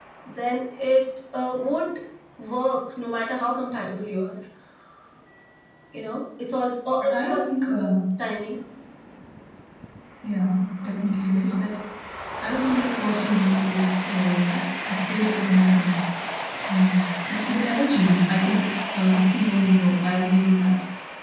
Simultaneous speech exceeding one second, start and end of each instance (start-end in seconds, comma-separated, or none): none